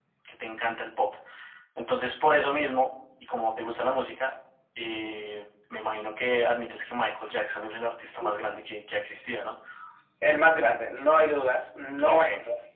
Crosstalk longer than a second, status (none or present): none